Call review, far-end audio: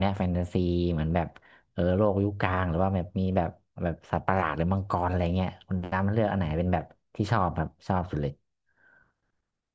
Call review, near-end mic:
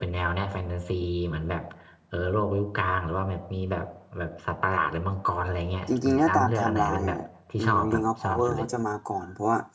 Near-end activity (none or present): present